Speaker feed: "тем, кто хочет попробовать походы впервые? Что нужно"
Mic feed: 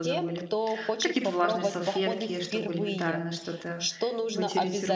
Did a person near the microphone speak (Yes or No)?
Yes